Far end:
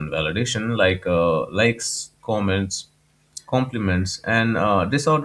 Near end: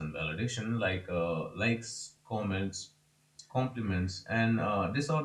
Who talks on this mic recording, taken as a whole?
echo only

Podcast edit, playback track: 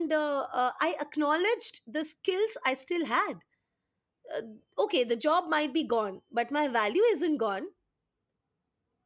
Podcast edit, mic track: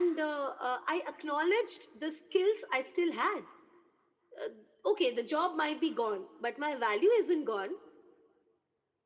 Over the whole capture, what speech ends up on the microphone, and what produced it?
echo only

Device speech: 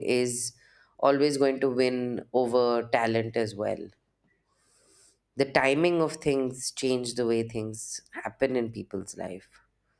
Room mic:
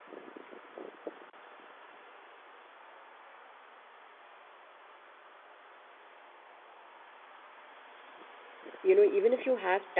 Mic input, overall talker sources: user only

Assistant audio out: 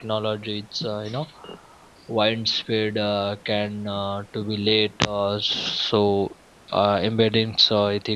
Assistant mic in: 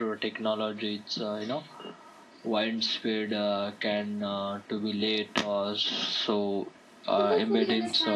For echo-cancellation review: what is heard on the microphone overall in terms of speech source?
both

